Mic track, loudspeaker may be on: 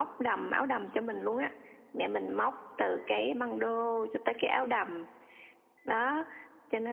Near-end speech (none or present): none